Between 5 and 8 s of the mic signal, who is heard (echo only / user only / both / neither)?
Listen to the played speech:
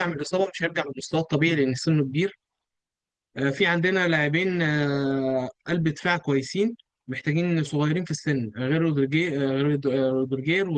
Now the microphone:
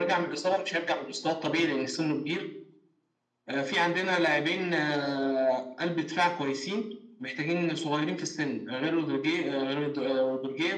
echo only